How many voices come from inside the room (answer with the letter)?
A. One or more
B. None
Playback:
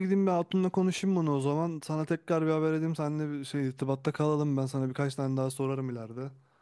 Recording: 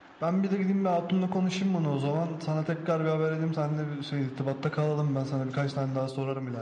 B